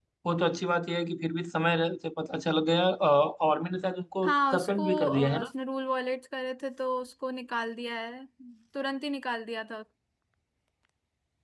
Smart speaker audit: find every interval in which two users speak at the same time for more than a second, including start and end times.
4.2-5.5

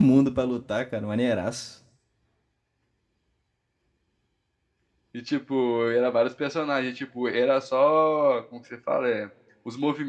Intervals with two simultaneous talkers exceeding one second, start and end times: none

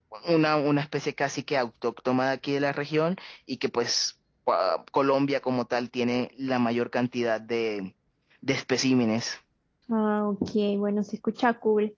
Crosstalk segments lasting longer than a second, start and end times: none

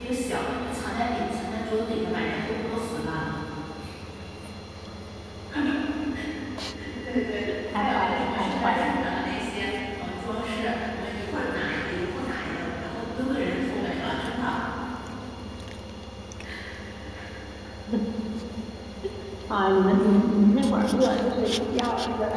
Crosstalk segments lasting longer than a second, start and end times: 7.7-8.9

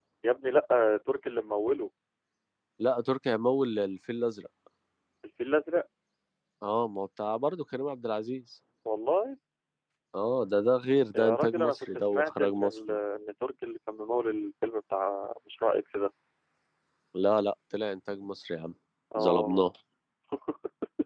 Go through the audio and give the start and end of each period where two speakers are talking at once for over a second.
11.2-13.0

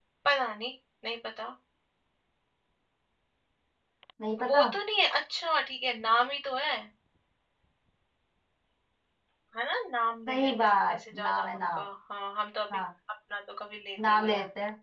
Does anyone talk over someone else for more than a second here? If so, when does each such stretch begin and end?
10.3-11.8

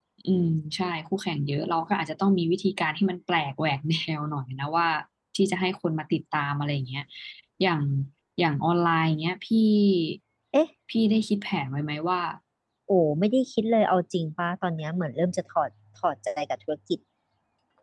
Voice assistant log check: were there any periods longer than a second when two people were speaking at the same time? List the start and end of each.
none

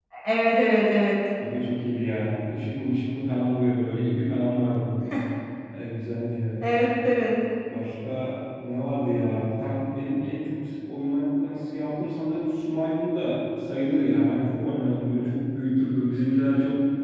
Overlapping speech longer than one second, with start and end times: none

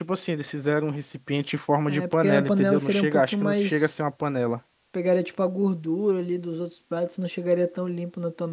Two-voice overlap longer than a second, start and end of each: 1.9-3.9

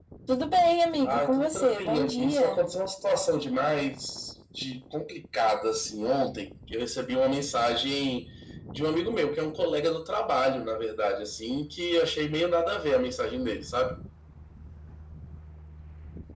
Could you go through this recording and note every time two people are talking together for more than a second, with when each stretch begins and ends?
1.1-2.6

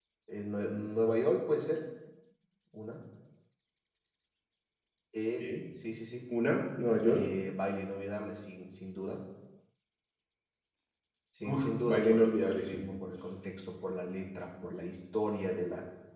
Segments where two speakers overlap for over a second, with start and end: 11.5-12.8

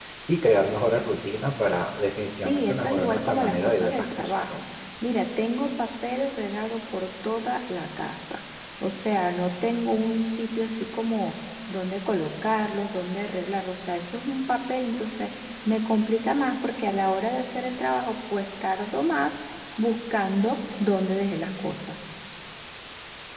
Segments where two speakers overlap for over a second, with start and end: 2.5-4.6

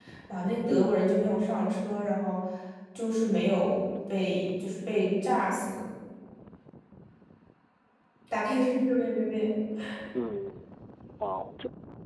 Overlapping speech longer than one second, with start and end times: none

